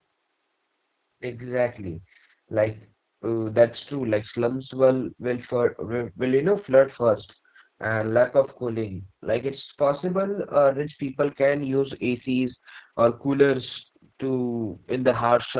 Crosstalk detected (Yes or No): No